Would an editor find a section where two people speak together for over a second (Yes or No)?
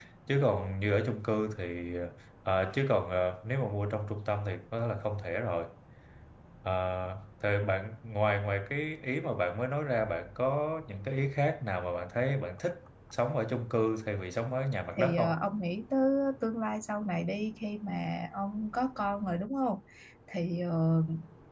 No